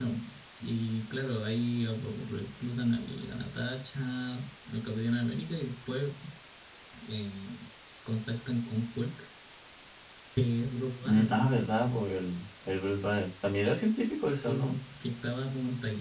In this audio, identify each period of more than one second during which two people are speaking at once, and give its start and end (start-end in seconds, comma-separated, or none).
none